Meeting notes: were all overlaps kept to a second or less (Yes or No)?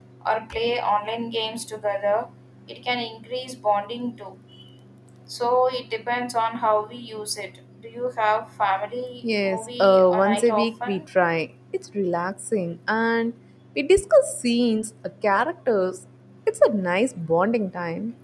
No